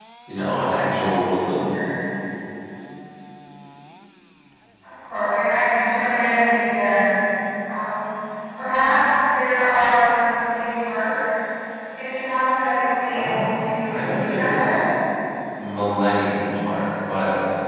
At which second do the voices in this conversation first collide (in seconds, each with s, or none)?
13.1 s